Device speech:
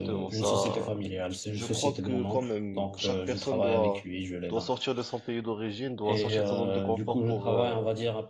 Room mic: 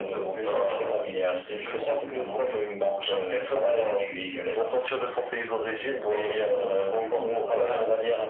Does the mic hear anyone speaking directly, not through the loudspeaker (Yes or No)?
No